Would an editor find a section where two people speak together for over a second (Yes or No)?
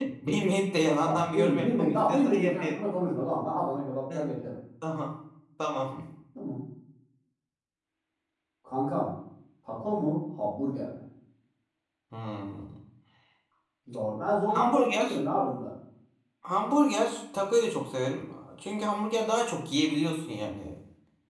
Yes